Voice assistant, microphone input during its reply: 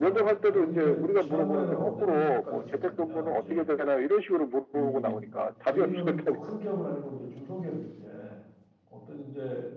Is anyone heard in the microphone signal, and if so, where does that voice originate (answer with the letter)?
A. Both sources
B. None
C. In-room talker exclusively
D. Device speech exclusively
A